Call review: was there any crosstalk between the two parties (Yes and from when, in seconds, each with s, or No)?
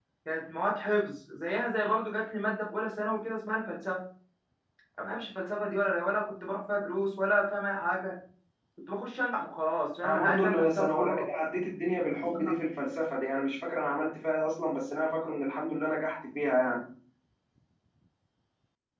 Yes, from 10.0 s